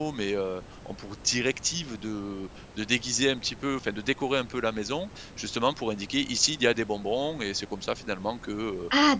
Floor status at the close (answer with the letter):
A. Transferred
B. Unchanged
A